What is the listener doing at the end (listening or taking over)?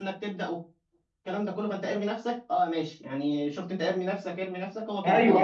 taking over